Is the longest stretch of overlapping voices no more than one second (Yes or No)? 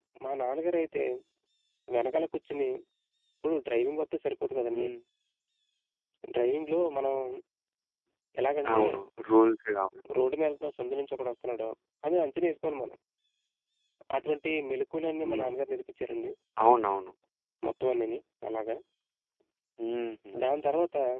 Yes